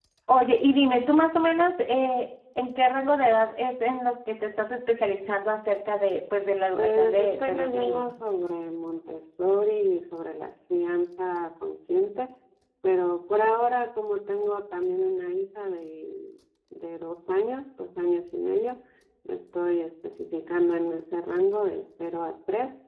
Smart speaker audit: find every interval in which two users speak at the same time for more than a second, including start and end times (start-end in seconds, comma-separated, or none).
6.7-8.1